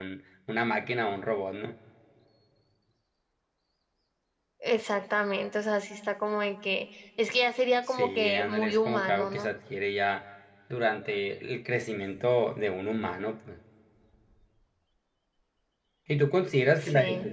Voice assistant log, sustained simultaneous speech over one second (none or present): present